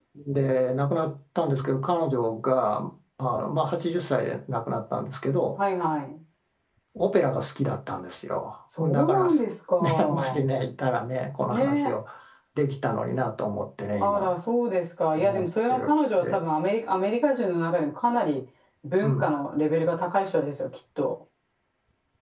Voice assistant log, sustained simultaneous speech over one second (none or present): present